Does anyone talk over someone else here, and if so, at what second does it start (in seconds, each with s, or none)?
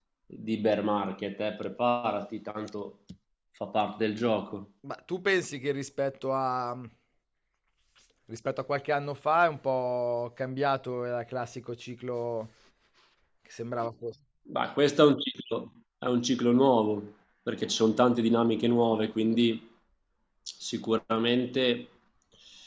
none